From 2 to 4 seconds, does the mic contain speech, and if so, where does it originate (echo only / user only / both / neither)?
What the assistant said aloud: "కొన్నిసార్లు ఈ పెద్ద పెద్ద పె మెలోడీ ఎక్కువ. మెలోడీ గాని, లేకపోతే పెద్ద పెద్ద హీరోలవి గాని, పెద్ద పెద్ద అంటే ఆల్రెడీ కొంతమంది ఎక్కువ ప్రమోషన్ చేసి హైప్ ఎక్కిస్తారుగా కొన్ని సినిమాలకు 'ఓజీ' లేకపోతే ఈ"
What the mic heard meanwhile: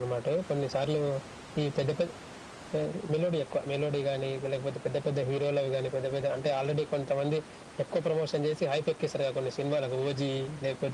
echo only